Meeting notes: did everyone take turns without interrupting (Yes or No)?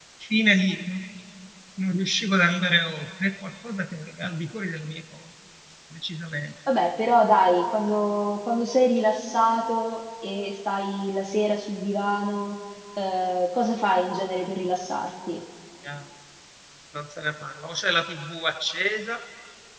Yes